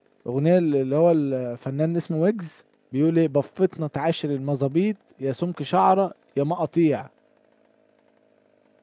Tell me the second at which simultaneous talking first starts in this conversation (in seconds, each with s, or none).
none